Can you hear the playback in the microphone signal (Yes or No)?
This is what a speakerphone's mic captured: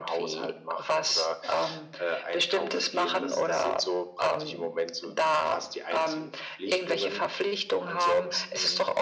Yes